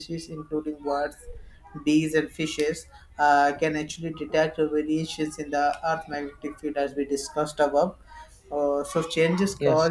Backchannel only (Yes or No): Yes